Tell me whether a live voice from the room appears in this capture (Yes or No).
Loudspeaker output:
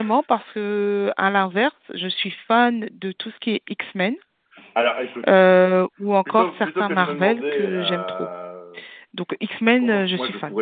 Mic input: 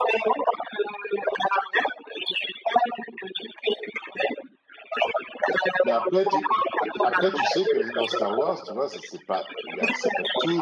Yes